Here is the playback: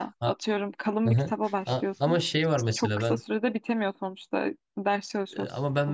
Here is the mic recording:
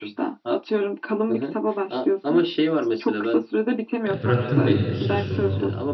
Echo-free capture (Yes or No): No